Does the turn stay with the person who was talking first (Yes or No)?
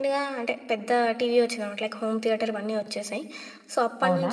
Yes